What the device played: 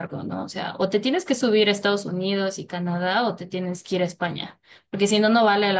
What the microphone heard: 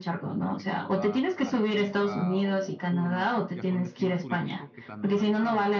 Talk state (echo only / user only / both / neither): both